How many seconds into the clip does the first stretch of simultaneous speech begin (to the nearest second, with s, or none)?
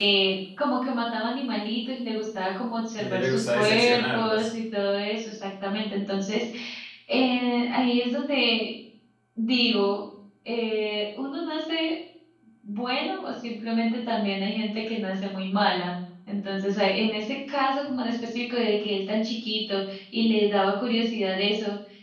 3 s